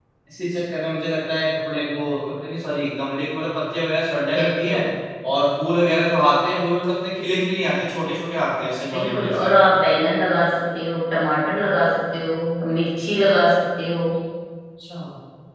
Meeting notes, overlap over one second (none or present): none